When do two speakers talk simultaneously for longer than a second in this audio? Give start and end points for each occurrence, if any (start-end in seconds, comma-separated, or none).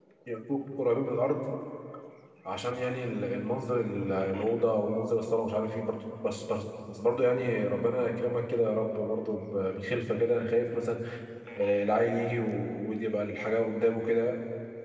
none